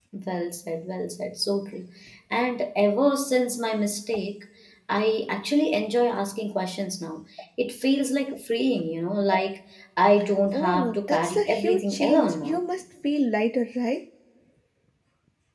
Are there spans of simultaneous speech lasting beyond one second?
Yes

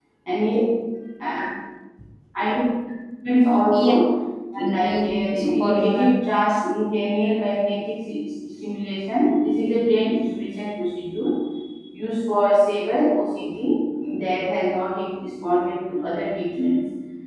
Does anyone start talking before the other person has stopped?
Yes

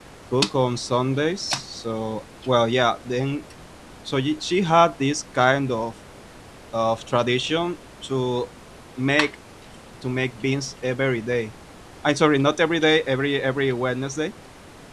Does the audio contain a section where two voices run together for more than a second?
No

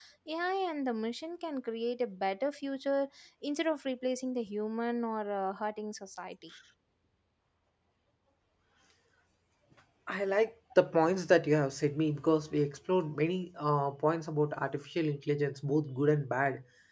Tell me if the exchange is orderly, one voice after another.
Yes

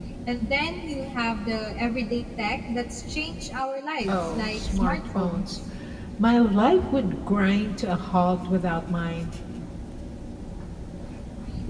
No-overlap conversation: No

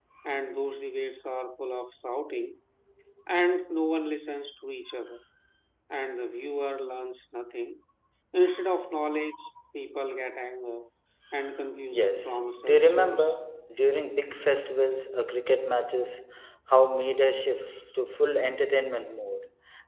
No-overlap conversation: No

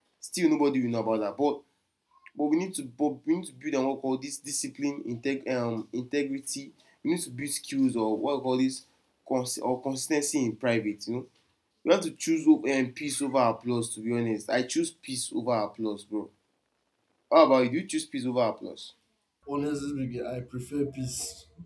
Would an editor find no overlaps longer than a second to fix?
Yes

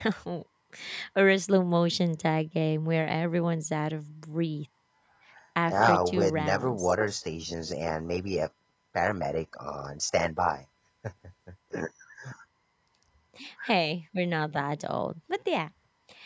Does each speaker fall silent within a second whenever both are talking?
No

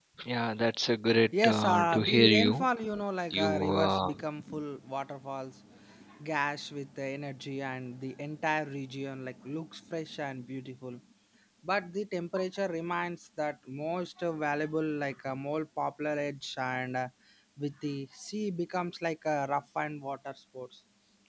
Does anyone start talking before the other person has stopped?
Yes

